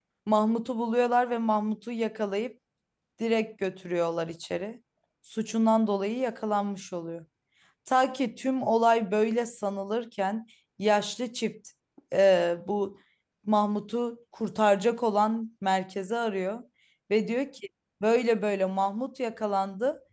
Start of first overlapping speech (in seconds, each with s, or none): none